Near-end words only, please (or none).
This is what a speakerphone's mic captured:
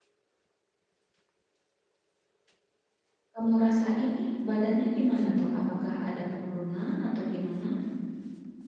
kamu rasain nih badannya gimana tuh? Apakah ada penurunan atau gimana?